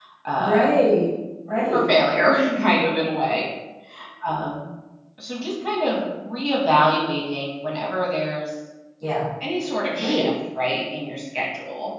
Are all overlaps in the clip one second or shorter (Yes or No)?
Yes